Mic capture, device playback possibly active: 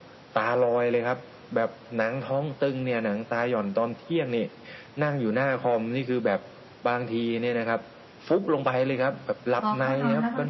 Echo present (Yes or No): Yes